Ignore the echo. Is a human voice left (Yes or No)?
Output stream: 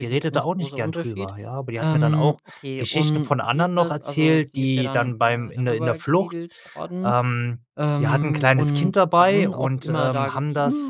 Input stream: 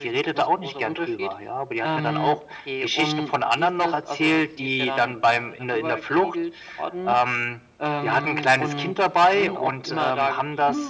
No